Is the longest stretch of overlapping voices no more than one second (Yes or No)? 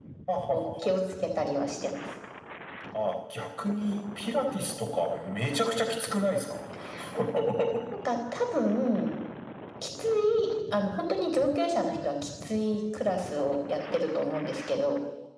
Yes